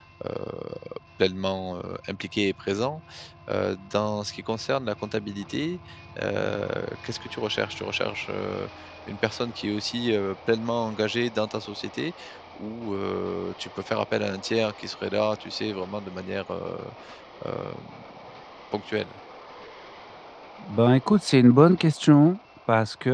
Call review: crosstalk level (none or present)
none